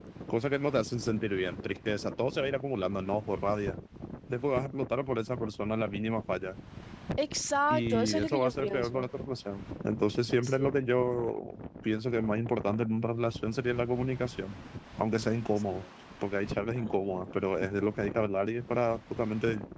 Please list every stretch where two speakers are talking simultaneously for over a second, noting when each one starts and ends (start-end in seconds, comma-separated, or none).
7.7-9.1